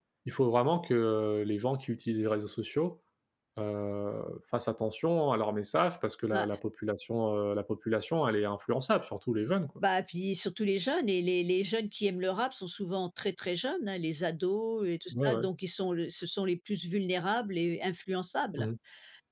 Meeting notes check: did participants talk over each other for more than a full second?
No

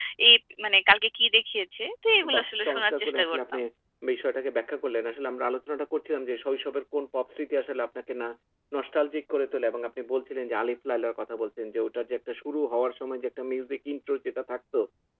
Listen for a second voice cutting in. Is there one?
Yes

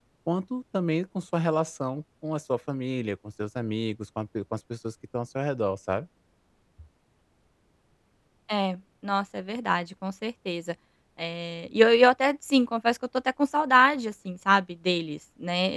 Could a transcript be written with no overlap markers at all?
Yes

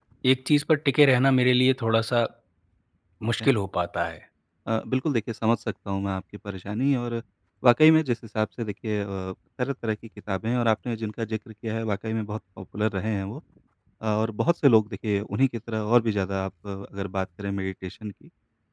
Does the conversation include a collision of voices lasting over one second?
No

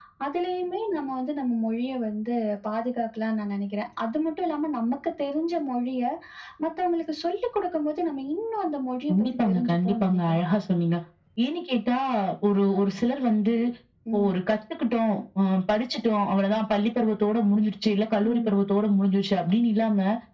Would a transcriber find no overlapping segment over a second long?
No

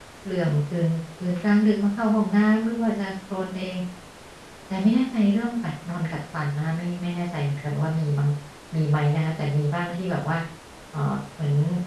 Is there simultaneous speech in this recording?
No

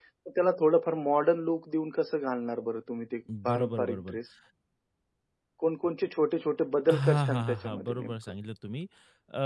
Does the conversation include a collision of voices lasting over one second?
Yes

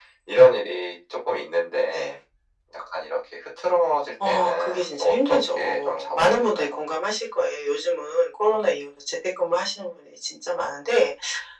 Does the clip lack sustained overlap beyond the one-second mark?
No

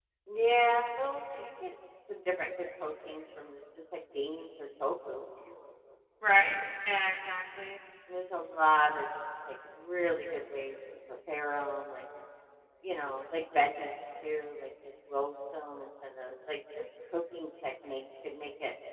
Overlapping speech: No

